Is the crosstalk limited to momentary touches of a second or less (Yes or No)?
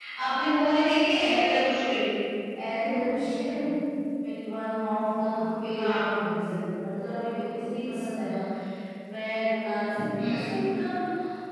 Yes